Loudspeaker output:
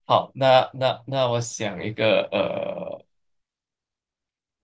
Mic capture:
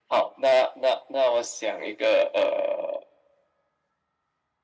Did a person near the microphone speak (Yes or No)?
No